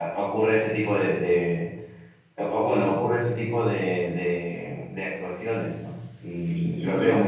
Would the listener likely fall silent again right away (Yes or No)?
No